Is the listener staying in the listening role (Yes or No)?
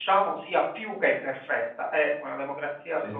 Yes